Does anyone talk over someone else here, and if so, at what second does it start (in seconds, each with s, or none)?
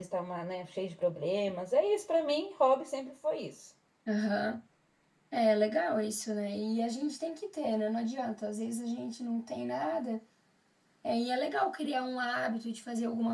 none